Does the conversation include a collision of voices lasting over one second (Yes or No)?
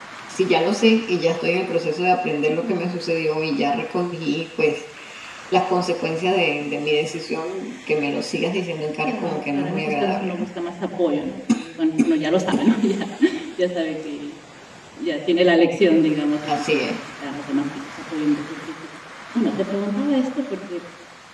Yes